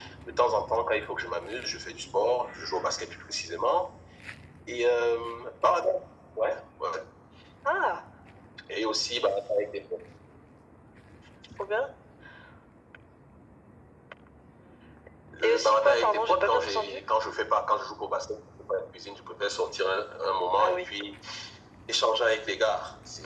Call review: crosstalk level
present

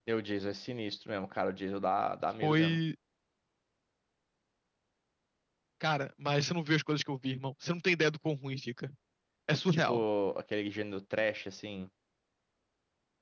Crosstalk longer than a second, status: none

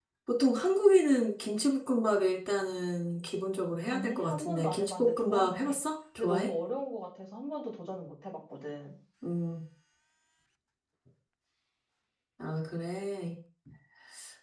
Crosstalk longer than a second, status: present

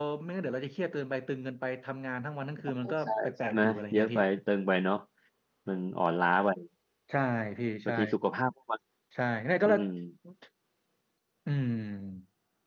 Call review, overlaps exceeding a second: present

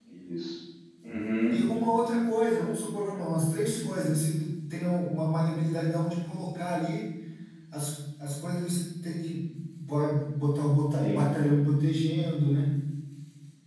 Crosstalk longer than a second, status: none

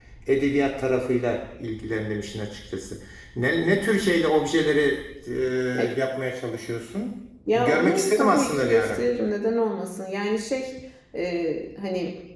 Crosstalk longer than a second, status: present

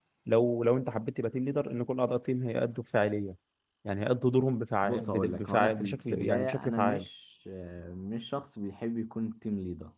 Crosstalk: present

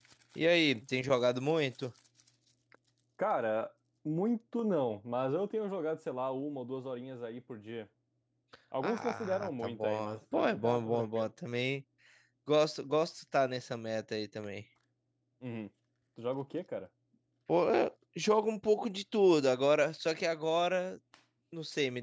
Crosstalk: present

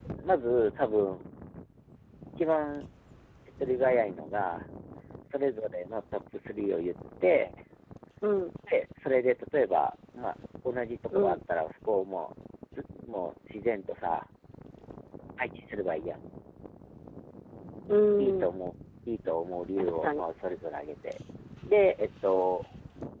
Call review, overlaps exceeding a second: none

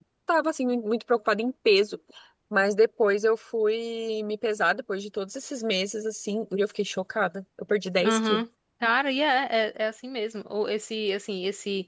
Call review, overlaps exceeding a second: none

